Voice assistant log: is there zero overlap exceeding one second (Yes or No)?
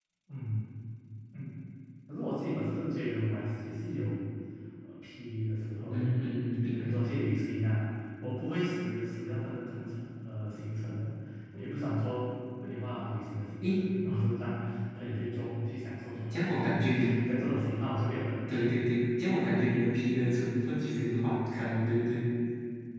Yes